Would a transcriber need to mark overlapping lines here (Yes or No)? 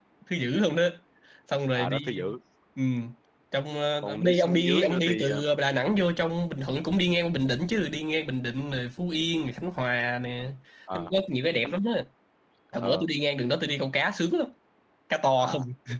Yes